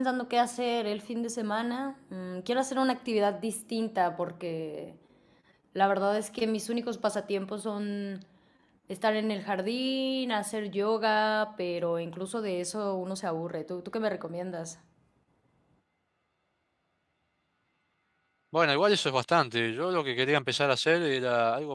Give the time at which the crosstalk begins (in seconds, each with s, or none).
none